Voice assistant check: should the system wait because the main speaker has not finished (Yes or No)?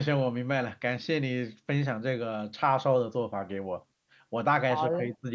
Yes